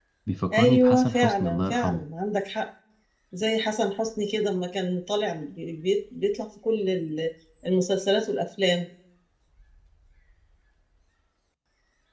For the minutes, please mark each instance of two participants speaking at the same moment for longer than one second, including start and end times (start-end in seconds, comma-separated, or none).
0.5-2.0